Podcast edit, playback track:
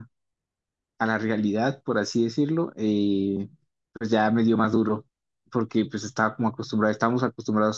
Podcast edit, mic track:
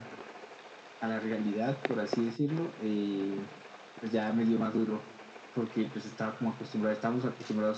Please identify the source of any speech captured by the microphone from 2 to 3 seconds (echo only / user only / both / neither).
echo only